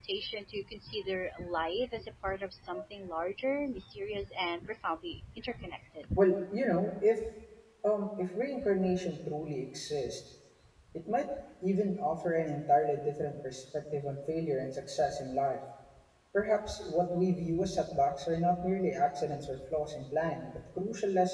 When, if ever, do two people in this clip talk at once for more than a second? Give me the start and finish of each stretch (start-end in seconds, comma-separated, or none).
none